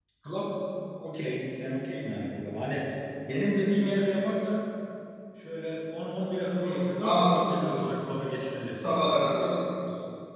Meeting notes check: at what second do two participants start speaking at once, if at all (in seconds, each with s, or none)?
6.6 s